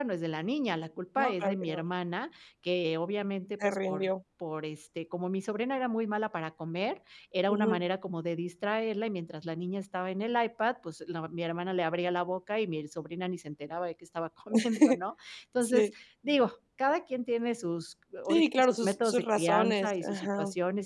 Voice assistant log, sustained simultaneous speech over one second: present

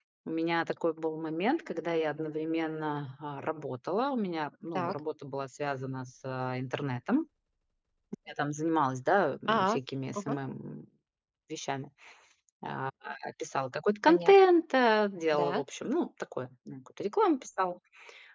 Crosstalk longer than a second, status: none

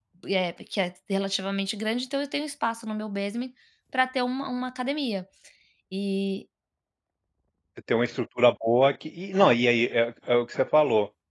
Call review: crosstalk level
none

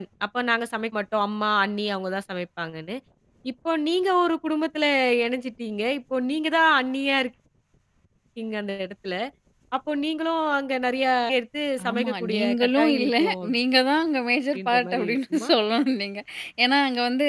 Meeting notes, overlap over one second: present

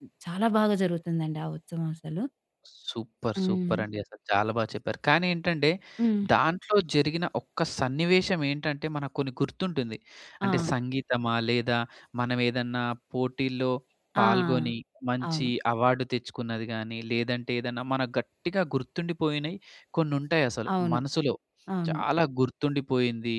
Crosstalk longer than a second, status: none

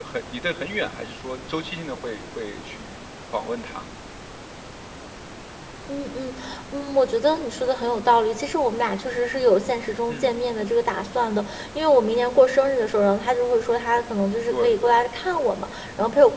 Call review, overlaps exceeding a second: none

